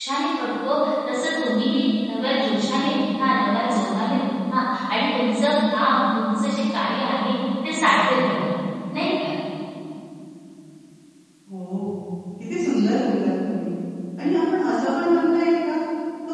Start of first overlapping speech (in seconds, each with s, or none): none